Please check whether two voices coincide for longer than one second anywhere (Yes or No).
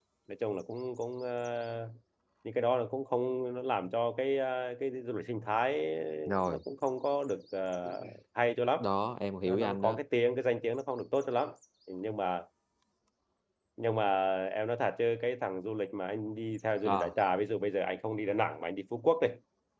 No